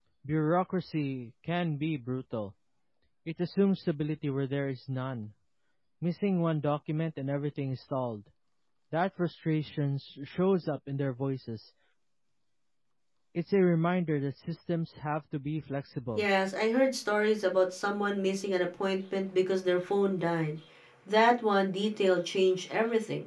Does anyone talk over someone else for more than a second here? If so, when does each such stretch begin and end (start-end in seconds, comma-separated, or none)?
none